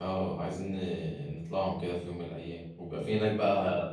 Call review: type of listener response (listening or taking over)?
listening